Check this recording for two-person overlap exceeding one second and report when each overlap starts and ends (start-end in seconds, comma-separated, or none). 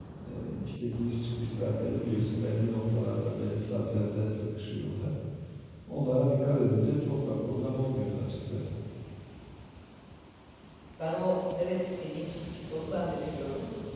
none